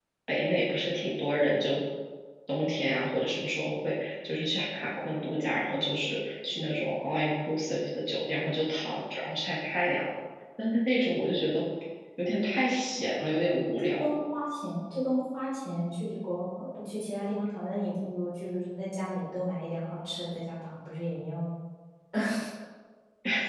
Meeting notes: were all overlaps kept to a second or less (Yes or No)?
Yes